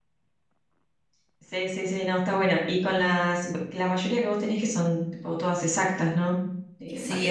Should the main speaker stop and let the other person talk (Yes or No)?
Yes